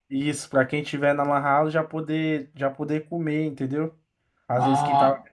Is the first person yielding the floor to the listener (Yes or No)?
Yes